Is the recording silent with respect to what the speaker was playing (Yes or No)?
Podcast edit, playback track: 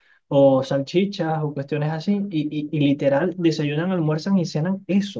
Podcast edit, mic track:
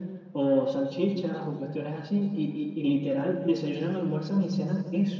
No